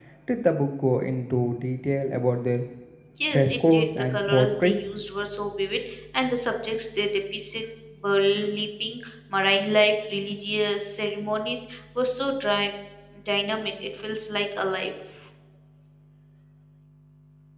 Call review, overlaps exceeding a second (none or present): present